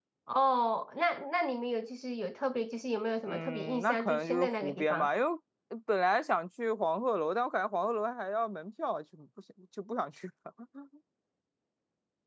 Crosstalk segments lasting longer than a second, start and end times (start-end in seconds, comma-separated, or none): 3.3-5.1